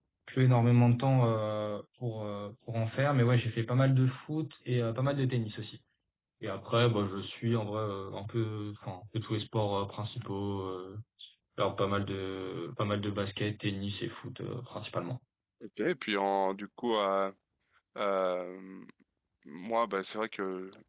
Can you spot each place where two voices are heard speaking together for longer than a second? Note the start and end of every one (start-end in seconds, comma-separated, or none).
none